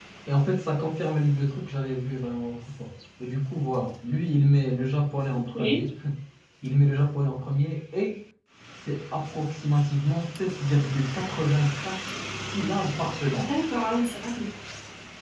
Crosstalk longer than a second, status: none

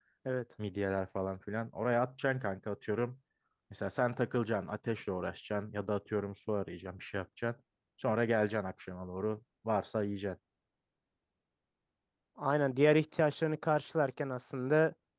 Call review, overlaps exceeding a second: none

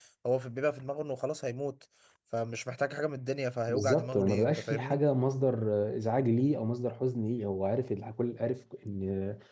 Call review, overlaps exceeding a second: present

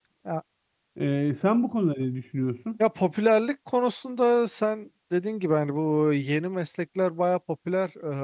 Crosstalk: none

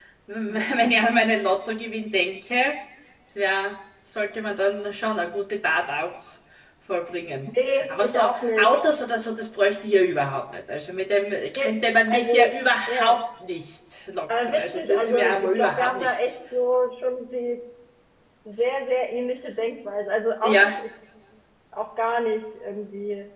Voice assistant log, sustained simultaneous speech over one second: present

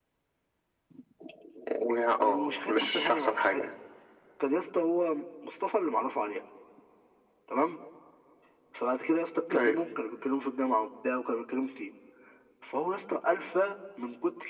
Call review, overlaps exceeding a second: present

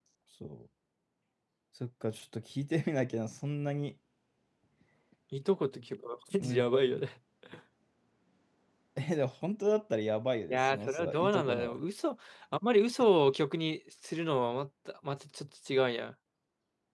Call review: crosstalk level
present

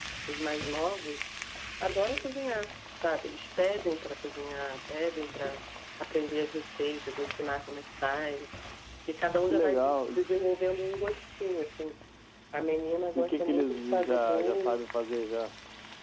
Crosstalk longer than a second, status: present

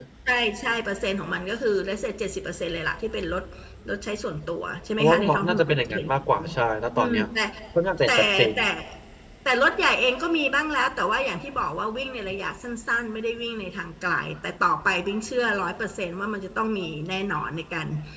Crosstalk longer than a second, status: present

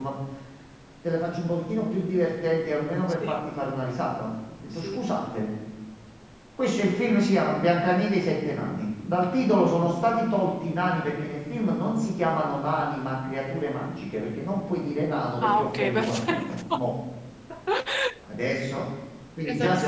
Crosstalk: present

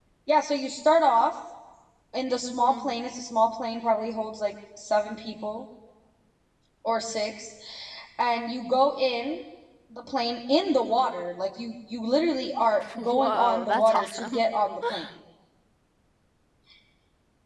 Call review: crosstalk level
present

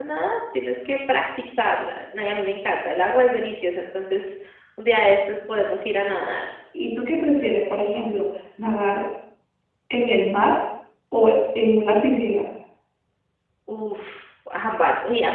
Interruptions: none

